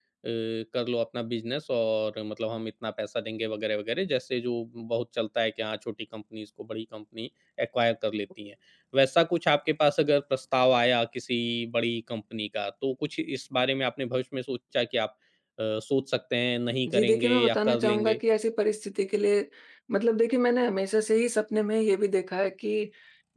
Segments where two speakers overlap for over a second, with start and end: 16.9-18.2

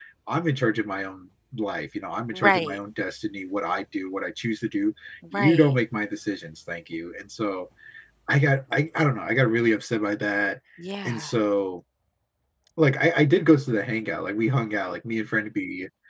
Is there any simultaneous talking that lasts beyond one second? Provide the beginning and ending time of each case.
none

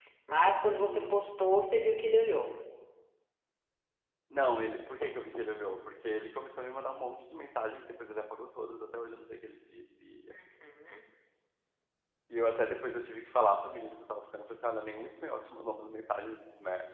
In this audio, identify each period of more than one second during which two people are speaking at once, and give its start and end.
none

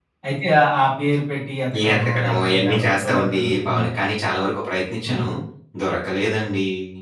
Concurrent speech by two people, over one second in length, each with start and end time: 1.9-3.8

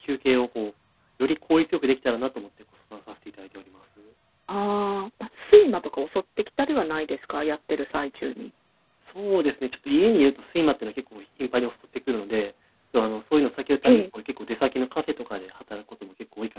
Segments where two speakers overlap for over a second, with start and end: none

